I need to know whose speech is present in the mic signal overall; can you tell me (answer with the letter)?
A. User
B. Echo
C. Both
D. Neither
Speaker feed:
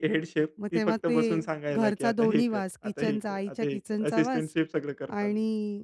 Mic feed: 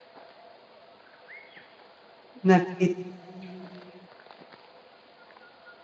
A